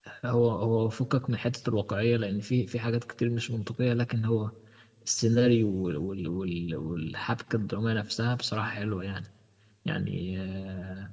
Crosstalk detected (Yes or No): No